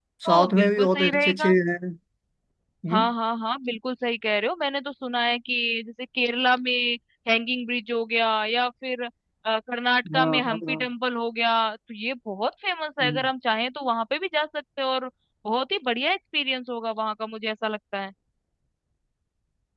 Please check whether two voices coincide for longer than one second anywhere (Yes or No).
Yes